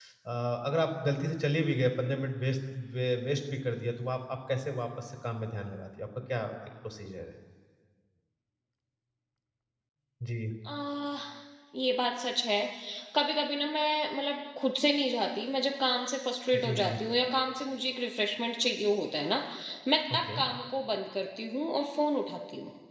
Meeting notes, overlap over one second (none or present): none